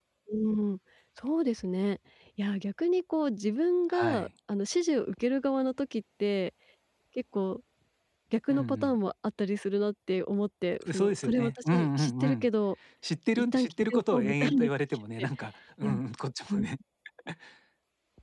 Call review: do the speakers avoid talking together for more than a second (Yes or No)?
No